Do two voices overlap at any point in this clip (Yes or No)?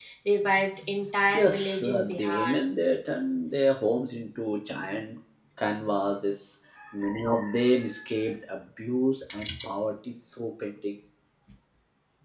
Yes